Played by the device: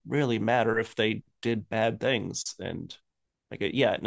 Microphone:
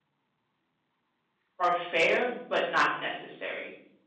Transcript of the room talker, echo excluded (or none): are fair but not necessary